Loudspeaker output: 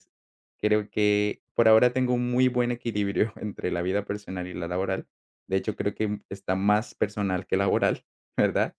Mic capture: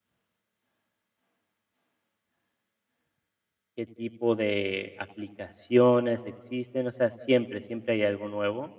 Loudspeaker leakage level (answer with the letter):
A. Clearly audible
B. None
B